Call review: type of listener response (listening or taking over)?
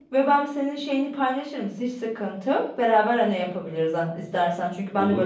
listening